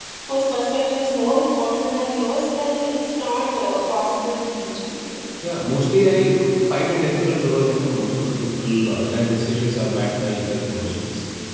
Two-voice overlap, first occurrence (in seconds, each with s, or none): none